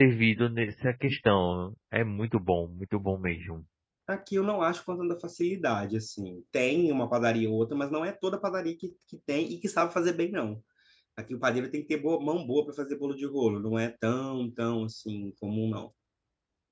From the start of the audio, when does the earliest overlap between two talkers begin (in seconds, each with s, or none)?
none